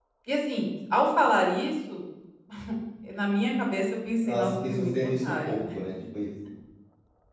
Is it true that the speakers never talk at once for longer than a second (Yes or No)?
No